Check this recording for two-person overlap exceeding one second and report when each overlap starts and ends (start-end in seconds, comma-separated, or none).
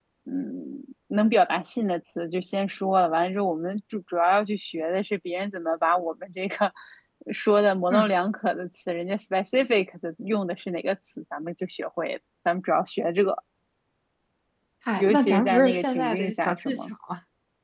15.0-16.9